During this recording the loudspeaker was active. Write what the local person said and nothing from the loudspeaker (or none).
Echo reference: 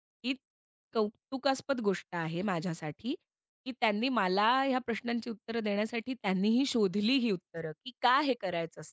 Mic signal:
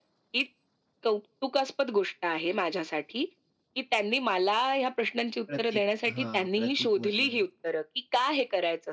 प्रतीक हां, प्रतीक म्हटलं जातं.